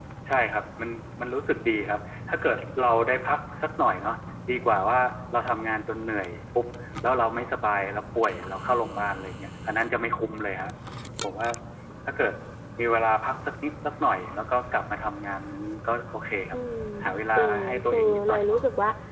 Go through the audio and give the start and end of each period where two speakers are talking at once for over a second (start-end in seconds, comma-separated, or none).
17.4-18.6